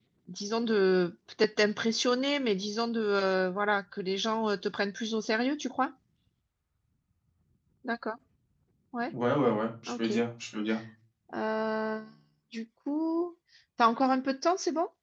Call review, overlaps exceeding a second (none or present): none